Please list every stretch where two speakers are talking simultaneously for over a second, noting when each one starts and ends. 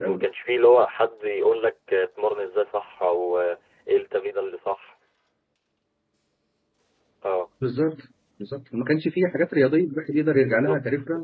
none

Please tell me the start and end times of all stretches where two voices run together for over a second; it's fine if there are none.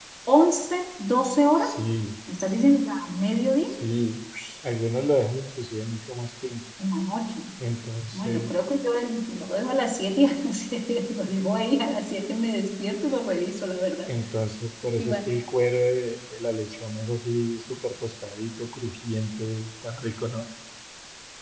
none

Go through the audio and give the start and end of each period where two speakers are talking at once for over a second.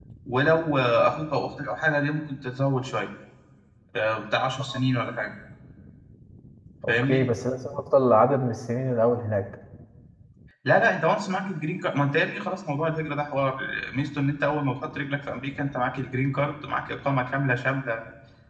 none

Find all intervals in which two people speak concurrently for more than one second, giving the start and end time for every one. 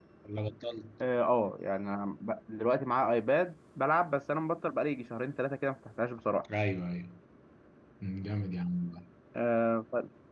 none

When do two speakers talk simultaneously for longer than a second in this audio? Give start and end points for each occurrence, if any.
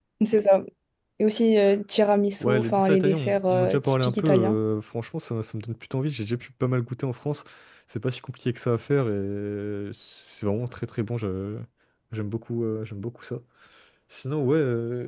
2.4-4.6

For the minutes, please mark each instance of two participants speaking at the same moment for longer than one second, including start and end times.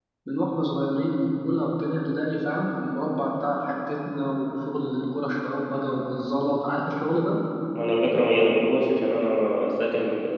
none

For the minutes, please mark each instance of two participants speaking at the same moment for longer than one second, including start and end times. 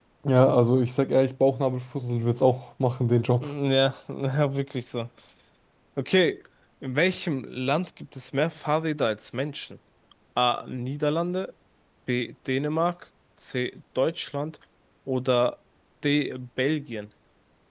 none

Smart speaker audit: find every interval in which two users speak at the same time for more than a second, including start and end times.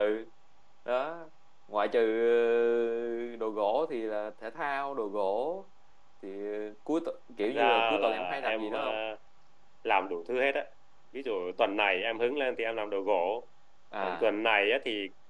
7.4-8.8

